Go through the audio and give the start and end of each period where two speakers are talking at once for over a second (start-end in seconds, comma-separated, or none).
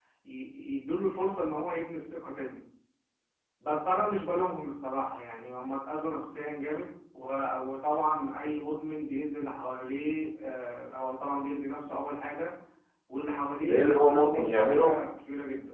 13.7-15.0